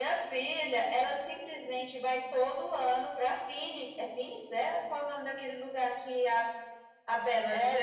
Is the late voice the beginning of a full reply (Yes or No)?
Yes